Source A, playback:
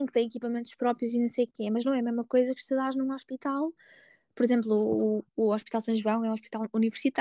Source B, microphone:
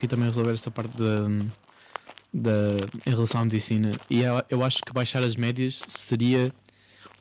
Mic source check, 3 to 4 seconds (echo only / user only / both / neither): user only